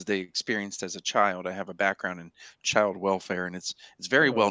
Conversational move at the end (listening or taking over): listening